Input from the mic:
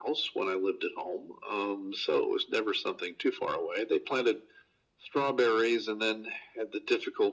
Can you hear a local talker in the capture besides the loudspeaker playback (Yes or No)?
No